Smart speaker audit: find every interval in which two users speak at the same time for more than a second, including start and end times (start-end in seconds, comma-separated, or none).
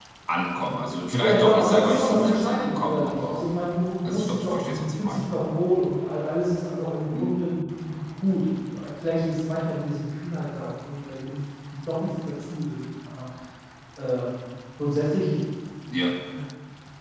1.2-3.5, 4.0-5.3